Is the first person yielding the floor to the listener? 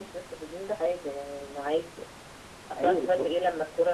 No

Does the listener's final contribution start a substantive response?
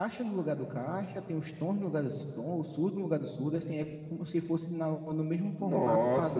Yes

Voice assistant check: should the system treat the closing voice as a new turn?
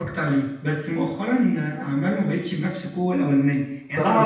No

